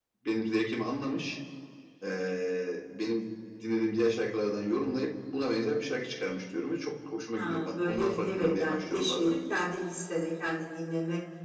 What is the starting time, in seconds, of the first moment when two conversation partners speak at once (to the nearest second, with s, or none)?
7 s